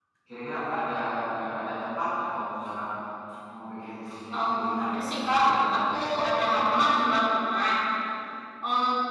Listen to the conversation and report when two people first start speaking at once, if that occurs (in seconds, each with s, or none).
4.4 s